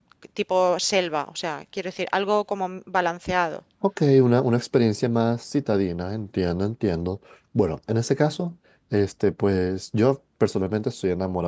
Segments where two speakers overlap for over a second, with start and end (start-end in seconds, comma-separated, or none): none